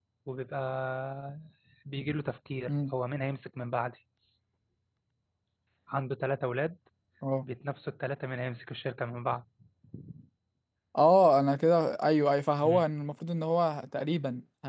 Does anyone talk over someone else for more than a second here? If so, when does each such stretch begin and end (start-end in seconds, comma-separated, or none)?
none